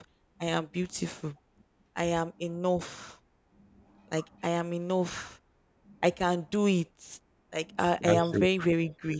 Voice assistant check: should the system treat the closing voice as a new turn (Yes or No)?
No